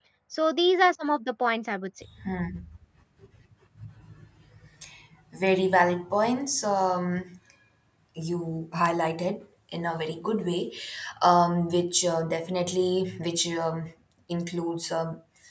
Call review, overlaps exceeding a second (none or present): none